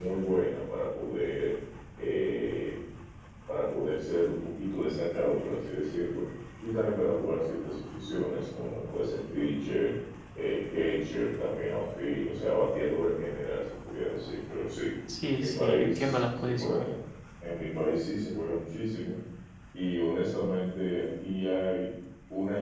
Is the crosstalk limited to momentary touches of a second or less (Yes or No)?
No